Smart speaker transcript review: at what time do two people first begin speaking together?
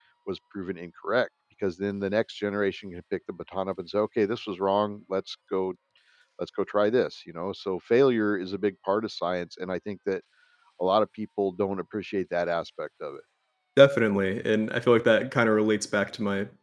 none

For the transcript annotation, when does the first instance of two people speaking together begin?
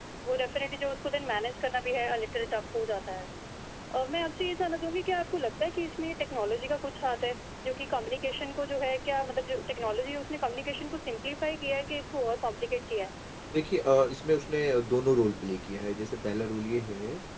none

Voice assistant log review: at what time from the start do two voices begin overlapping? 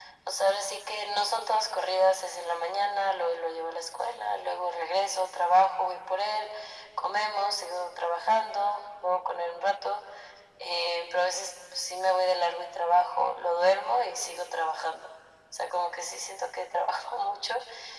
none

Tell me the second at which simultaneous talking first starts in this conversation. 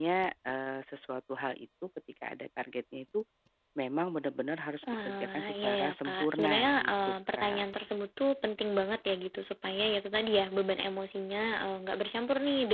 4.8 s

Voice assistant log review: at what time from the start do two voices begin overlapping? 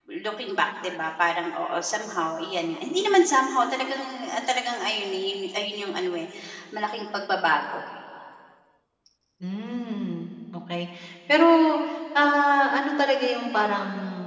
none

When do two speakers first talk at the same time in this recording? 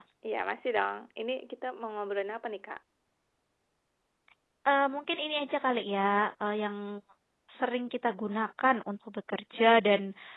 none

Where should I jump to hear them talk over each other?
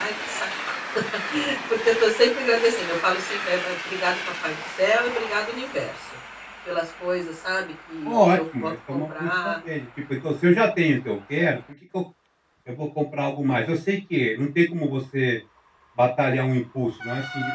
8.0 s

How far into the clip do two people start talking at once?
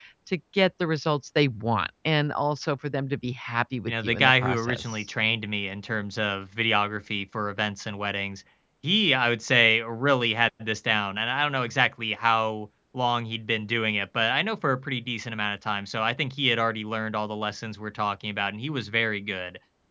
3.9 s

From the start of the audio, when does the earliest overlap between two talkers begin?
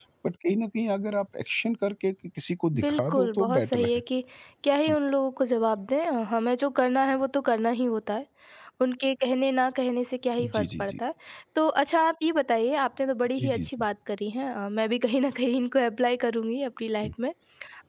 2.8 s

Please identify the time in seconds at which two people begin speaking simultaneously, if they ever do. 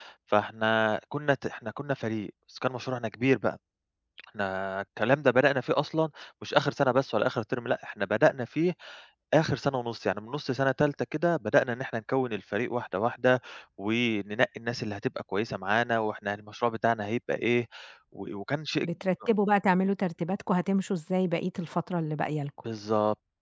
none

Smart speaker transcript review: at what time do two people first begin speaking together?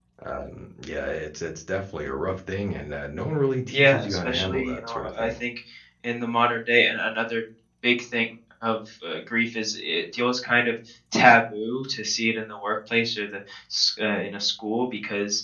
3.7 s

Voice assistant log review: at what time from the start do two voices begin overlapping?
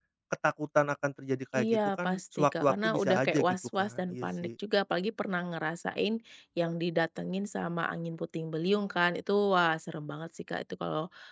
1.5 s

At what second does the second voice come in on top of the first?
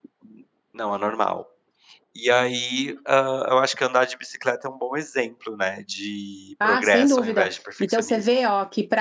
6.6 s

